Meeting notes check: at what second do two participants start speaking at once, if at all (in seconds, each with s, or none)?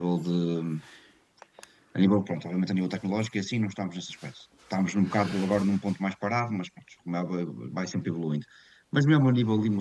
none